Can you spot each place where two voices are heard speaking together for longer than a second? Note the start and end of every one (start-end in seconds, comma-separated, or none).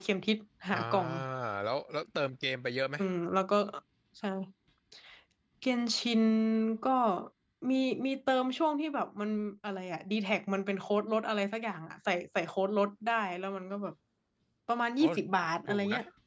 none